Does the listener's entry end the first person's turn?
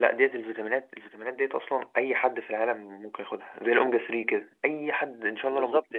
Yes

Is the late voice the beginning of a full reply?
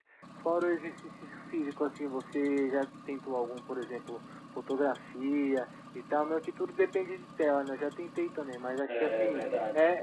No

